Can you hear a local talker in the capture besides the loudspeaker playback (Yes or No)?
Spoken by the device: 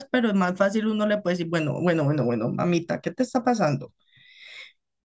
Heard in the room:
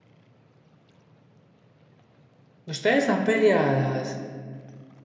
Yes